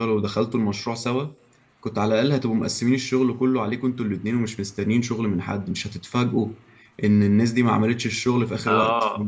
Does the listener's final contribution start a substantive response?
Yes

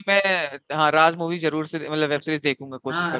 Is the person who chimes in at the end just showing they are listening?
No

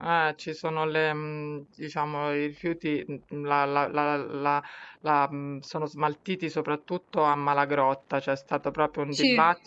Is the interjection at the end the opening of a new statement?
No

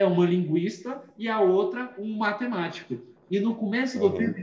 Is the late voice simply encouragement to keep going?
Yes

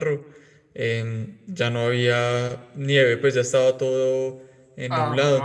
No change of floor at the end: No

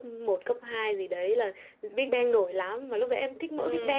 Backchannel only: Yes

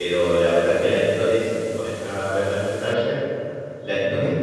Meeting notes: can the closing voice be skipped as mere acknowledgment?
Yes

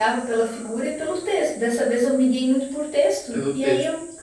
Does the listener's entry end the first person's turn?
No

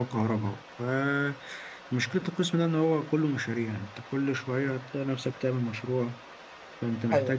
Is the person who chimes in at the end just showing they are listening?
Yes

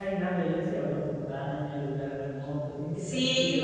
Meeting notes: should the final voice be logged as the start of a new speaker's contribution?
Yes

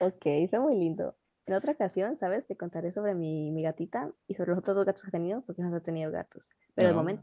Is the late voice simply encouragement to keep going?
Yes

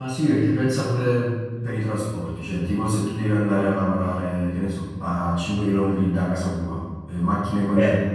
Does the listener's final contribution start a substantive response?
No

